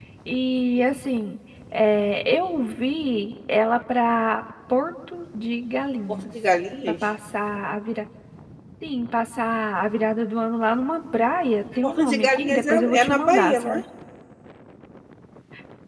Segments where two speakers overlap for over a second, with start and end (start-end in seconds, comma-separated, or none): 11.8-13.8